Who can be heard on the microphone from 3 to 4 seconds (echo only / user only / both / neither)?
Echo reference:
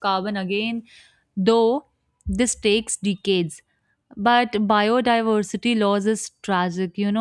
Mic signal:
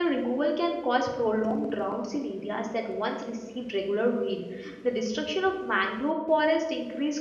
user only